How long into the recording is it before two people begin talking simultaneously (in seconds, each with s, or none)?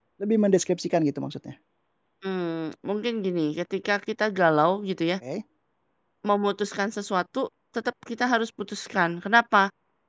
none